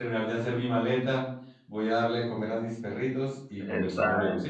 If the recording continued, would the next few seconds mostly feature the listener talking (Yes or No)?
Yes